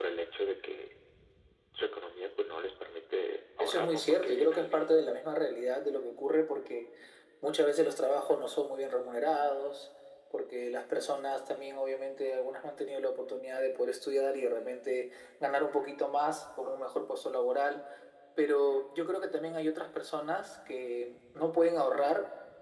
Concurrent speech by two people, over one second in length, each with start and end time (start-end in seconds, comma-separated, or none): 3.6-4.9